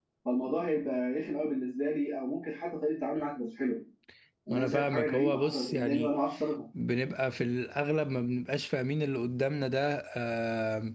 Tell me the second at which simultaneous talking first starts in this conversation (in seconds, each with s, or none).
4.5 s